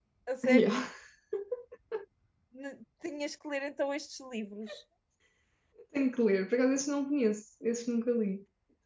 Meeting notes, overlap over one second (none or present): none